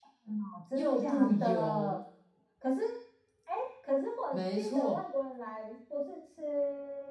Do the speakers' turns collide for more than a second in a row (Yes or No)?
Yes